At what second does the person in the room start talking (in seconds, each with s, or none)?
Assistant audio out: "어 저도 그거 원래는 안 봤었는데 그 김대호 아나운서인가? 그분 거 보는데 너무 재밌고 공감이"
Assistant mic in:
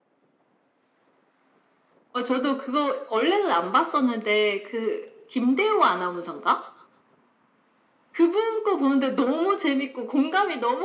none